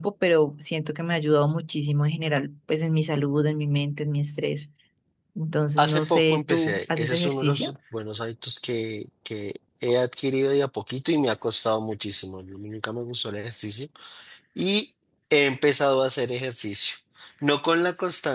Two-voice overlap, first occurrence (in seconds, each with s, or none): 5.8 s